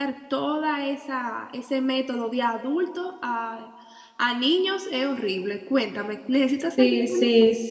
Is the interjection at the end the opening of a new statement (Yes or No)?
Yes